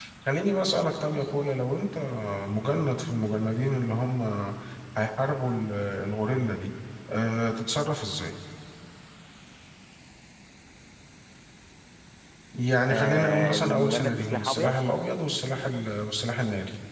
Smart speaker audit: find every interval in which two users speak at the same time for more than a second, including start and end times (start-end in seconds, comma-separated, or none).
12.9-14.7